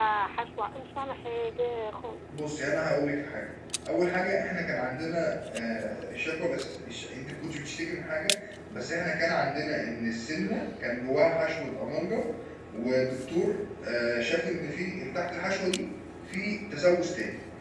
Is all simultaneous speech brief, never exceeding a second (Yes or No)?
Yes